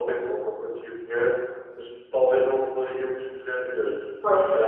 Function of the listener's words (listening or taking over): listening